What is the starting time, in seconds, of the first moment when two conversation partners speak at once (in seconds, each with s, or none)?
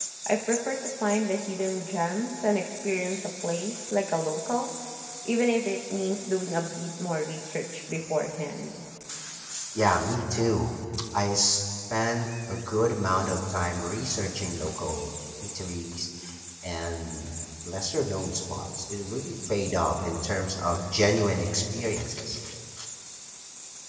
none